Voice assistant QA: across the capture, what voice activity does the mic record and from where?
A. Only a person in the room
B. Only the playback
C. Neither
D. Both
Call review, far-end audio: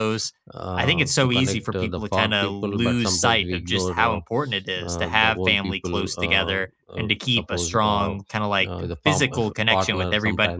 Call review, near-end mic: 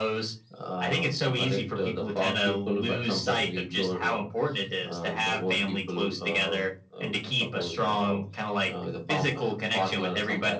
B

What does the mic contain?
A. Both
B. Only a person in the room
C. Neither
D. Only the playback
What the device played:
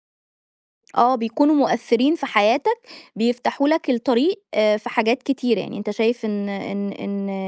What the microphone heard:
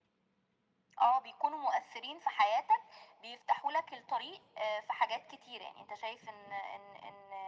D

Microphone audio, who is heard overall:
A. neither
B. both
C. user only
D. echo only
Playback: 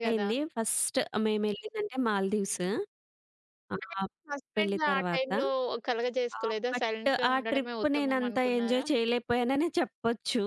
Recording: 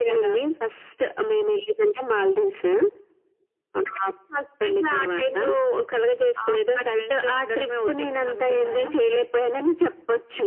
D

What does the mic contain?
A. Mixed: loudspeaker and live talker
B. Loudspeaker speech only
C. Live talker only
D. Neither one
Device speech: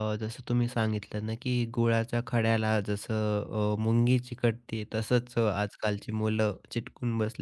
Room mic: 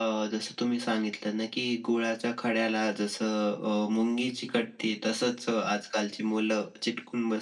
B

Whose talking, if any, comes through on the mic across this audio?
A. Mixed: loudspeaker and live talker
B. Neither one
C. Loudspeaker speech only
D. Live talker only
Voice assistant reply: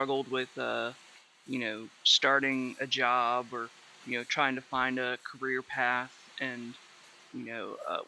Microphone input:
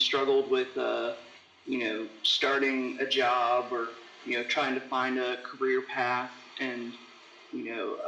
C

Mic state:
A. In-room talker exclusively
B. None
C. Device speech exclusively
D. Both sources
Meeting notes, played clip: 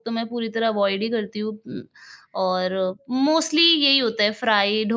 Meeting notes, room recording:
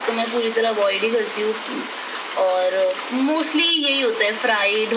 C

